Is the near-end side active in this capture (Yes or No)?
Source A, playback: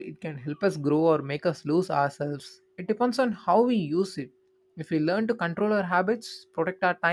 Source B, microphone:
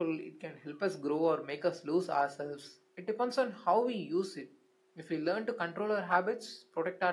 No